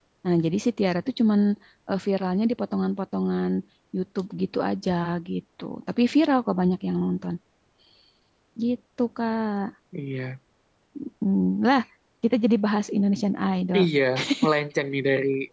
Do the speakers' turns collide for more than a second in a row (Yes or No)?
No